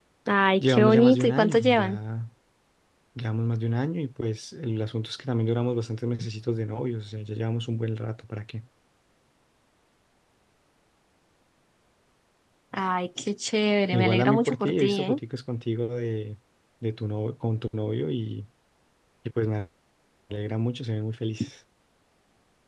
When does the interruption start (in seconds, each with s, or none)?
0.6 s